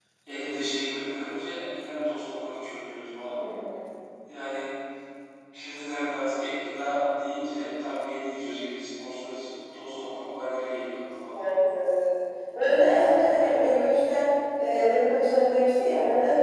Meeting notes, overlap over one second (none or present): none